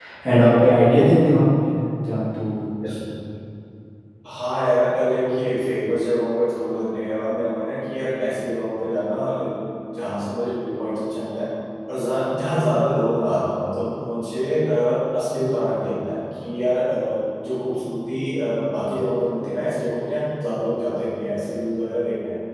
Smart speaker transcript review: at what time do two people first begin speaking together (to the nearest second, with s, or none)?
none